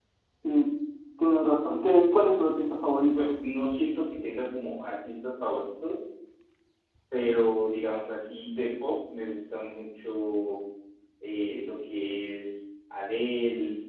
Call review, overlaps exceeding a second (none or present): none